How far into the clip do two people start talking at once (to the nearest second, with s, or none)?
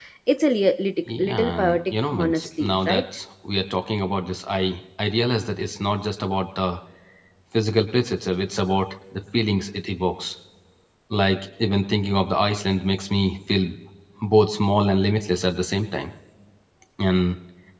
1 s